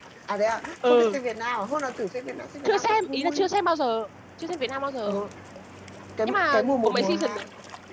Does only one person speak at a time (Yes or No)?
No